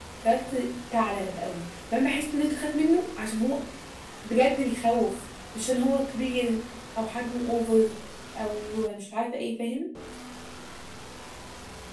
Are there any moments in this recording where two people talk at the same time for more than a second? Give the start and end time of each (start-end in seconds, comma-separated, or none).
none